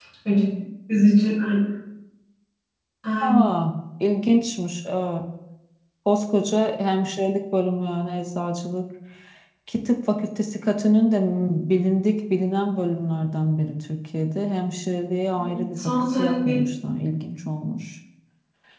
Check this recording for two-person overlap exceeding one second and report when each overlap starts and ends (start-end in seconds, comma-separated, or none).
15.4-16.6